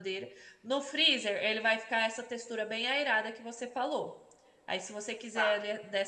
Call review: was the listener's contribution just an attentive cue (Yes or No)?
Yes